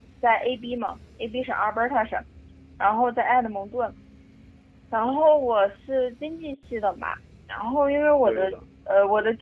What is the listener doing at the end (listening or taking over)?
listening